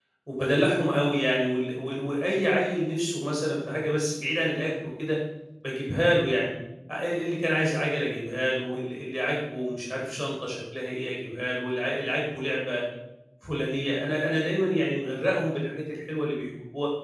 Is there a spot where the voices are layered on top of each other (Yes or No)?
No